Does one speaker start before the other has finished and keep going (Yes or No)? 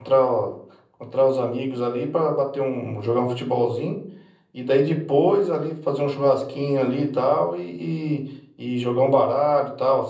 No